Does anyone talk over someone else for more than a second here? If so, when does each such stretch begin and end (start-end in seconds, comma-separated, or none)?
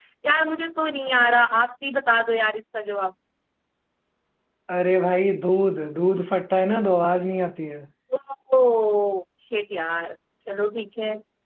none